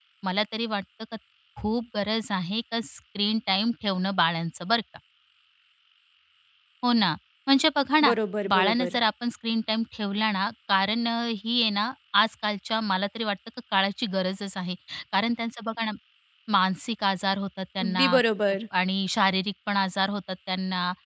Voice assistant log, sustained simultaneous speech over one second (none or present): none